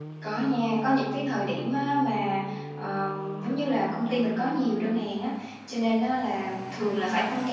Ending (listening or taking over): listening